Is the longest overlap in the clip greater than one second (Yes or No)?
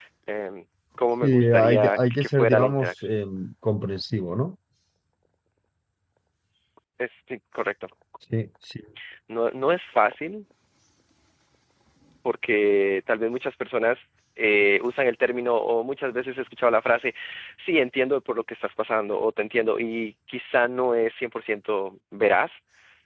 Yes